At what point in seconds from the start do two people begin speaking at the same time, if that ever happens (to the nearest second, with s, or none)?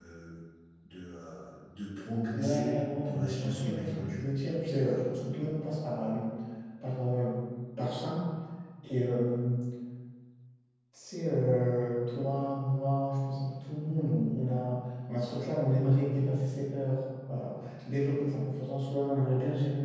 2 s